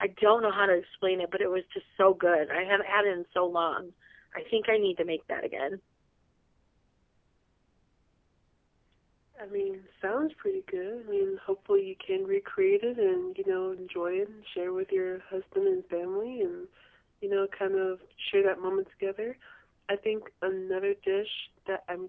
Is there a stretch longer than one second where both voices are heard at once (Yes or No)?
No